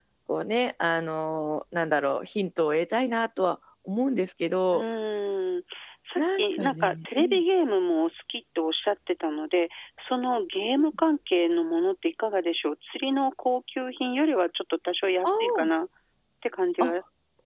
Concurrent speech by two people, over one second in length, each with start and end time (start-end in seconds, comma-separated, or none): 6.2-7.4